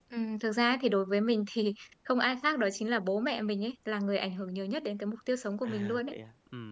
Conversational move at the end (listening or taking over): taking over